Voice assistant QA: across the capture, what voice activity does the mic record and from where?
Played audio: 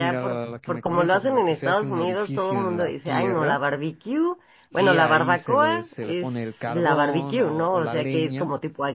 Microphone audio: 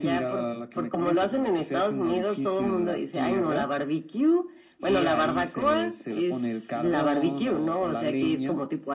echo only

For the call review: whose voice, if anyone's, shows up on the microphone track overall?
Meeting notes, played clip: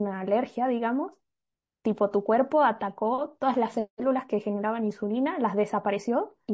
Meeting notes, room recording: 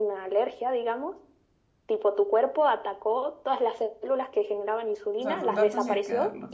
both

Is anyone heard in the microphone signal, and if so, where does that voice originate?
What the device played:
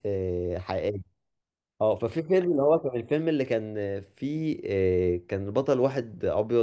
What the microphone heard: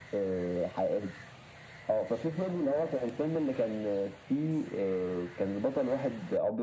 echo only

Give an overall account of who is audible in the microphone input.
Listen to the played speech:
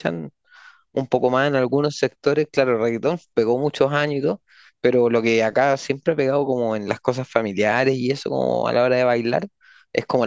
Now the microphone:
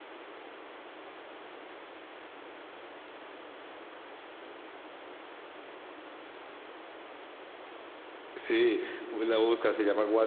user only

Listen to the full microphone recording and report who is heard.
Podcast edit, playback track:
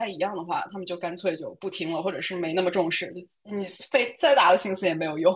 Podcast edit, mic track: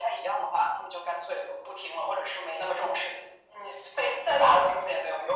echo only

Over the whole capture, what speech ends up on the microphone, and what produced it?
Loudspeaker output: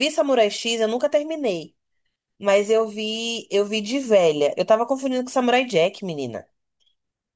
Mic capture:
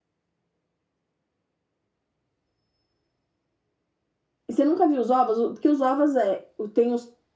user only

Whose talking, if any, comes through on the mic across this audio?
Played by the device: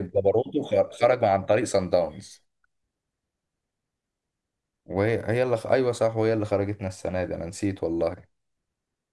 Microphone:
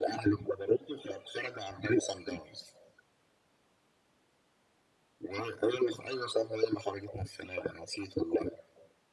echo only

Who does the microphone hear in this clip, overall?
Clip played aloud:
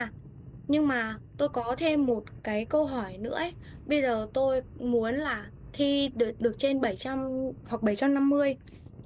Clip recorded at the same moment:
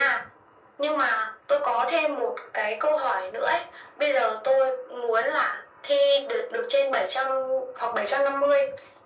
echo only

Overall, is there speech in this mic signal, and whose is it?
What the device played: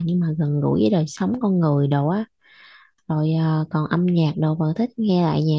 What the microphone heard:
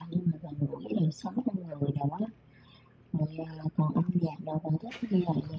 echo only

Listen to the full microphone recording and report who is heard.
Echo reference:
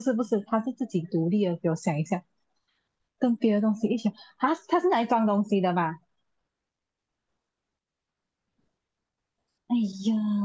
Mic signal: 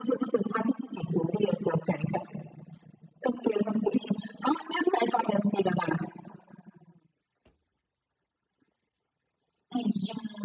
echo only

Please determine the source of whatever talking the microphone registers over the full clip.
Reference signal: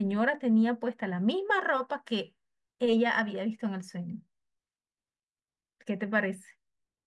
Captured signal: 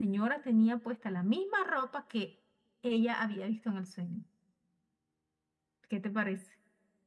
echo only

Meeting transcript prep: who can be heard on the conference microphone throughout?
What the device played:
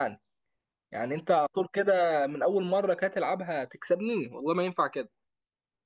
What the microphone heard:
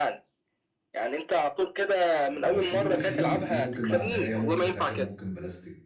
both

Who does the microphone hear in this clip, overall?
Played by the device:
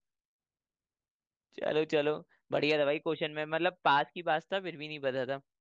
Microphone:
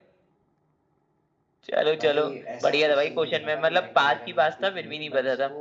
both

